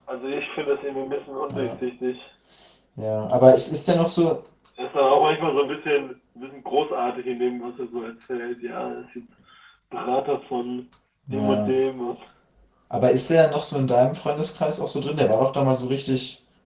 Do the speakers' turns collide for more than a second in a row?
No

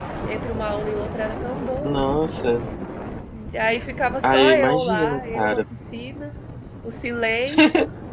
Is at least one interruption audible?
Yes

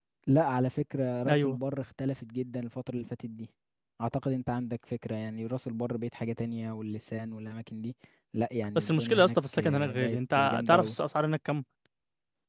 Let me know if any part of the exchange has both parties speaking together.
Yes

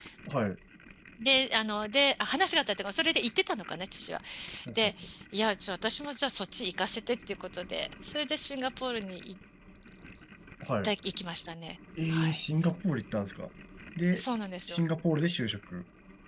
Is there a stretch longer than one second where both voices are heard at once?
No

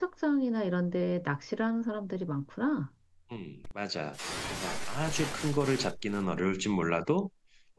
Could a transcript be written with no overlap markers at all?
Yes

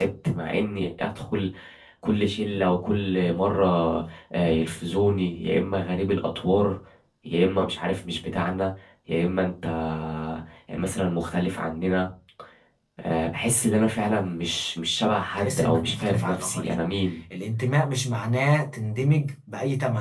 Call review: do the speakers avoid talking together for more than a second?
No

